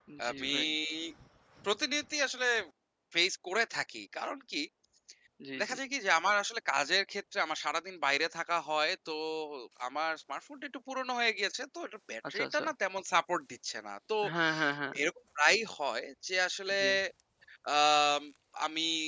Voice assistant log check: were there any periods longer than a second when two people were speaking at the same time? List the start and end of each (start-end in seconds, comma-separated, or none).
none